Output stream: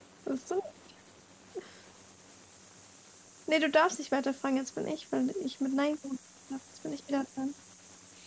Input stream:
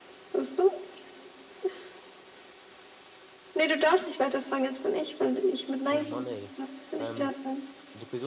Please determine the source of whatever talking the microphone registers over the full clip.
both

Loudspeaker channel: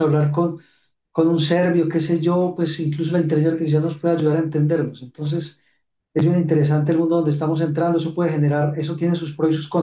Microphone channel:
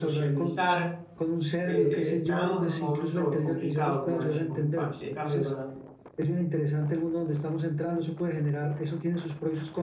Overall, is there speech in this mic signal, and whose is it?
both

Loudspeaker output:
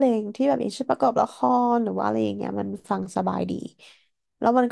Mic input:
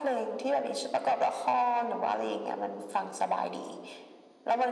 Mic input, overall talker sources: echo only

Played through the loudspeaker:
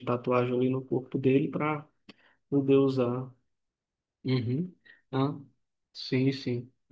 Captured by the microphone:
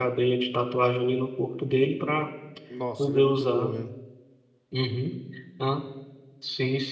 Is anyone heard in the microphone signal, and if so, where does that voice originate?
both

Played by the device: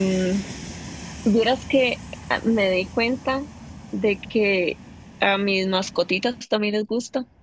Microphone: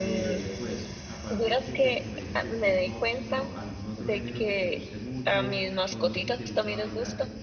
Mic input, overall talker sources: both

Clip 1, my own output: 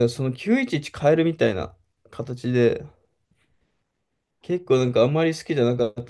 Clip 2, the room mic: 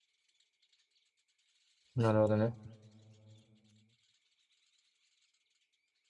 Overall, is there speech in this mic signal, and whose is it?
user only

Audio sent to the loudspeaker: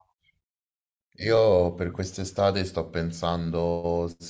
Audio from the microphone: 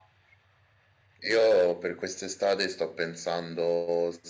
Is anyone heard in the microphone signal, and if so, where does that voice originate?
echo only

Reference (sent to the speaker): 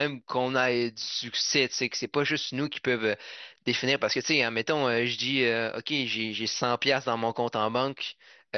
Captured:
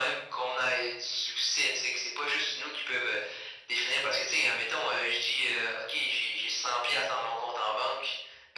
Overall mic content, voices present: echo only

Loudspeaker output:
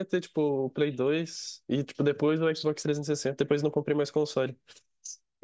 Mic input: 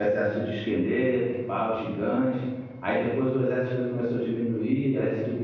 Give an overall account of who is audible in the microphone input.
user only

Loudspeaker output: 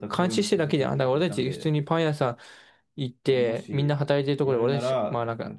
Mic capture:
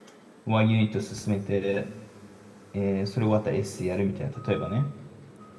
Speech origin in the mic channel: user only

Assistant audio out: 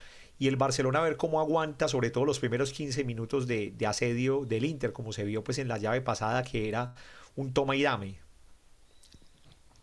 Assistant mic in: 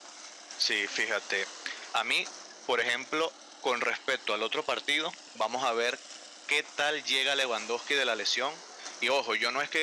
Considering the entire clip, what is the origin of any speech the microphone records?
user only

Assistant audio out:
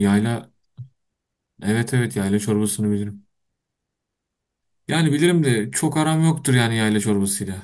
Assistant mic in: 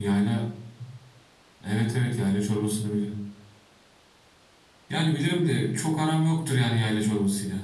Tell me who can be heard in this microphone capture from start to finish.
echo only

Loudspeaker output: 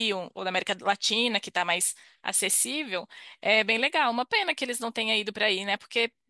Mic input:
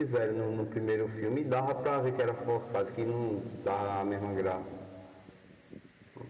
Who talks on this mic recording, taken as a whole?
user only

